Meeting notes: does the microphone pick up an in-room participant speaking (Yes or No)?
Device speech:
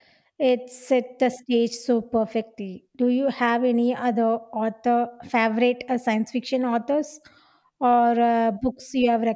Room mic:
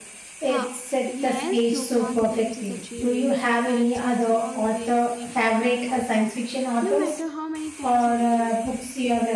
Yes